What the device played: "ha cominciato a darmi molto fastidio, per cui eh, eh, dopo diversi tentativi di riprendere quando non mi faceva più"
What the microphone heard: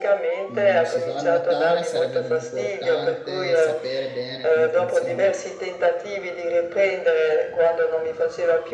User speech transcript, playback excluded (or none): mm, si va a nuotare sarebbe importante sapere bene come funziona